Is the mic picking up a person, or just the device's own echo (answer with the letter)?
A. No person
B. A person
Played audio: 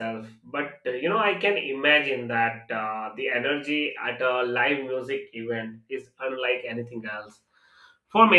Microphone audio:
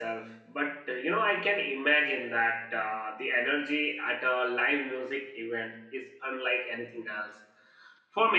A